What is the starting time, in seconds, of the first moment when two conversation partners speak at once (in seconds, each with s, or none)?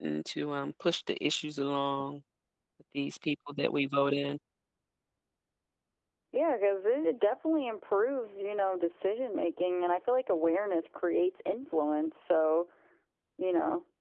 none